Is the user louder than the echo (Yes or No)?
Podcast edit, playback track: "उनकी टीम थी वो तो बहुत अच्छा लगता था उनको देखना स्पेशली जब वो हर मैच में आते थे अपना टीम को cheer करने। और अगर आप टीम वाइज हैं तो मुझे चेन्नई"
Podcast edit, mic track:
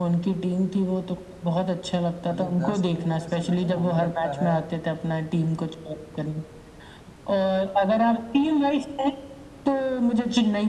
No